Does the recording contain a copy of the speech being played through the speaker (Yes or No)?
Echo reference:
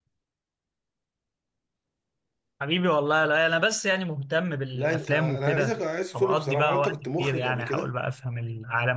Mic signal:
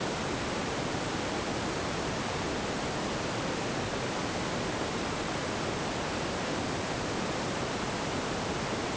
No